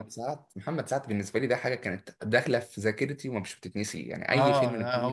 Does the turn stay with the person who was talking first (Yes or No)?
No